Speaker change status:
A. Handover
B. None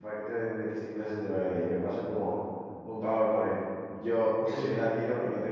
B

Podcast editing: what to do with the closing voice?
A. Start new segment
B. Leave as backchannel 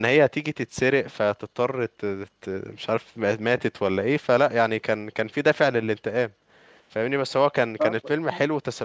B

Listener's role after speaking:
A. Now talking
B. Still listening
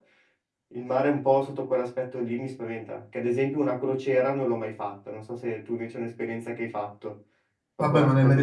A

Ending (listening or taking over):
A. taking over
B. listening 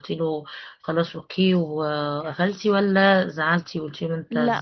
A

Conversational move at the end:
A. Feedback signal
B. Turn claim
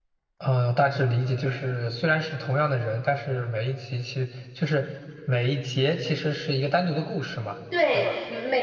B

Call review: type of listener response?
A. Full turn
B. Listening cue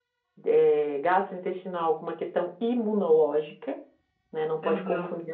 B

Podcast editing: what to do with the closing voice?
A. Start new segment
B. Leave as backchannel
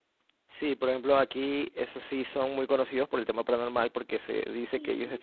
B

